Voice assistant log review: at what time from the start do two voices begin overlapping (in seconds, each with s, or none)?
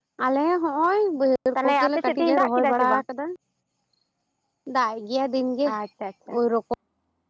1.6 s